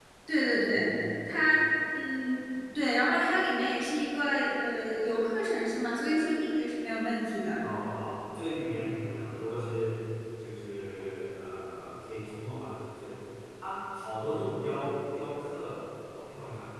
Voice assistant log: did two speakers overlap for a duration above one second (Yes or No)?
No